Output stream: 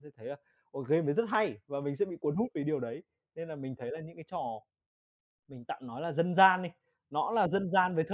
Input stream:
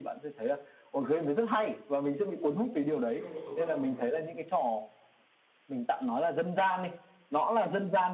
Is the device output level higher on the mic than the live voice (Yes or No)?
Yes